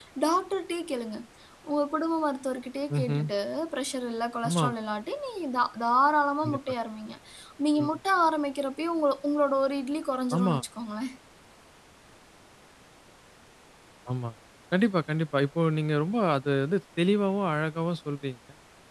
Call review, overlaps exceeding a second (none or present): none